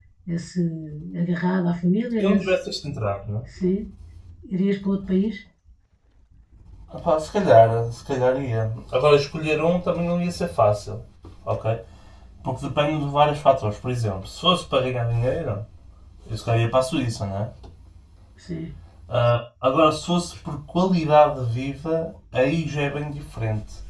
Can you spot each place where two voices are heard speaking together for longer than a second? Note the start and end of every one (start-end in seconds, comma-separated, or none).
none